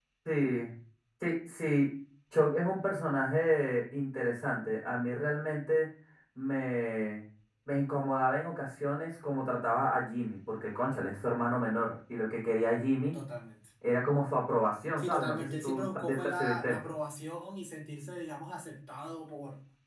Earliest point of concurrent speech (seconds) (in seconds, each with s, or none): 15.0 s